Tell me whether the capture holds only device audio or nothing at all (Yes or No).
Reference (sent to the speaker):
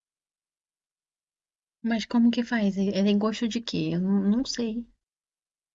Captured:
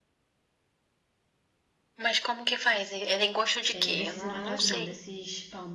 No